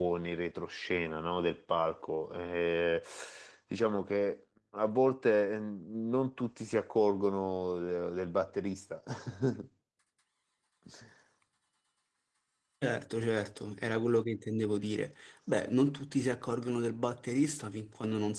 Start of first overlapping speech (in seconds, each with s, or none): none